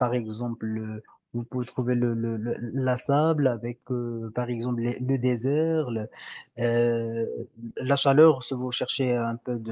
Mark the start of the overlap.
none

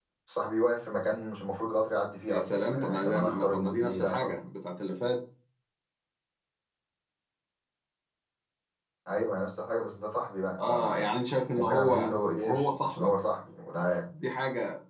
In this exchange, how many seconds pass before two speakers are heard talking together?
2 s

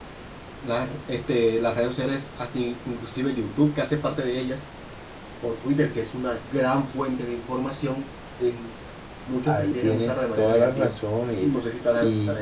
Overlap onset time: 9 s

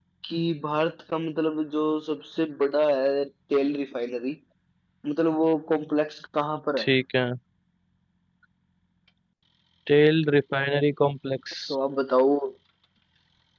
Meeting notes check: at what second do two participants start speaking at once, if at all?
none

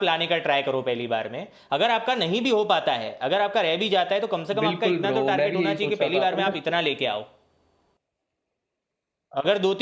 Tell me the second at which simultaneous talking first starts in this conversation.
5 s

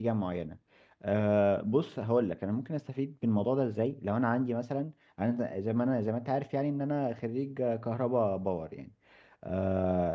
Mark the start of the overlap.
none

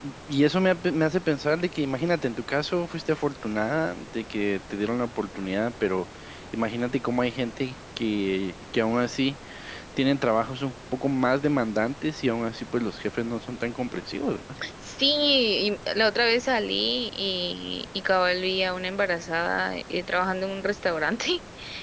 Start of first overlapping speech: none

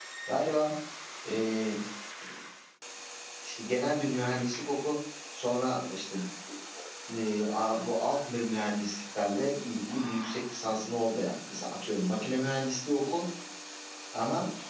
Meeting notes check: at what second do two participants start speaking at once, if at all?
none

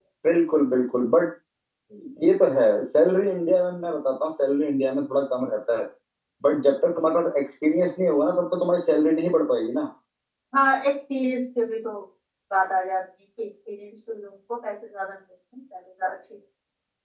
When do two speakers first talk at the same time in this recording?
none

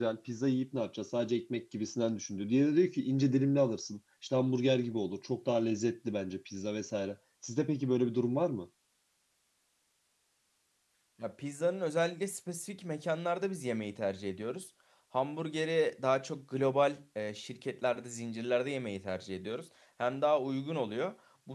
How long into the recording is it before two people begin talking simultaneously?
none

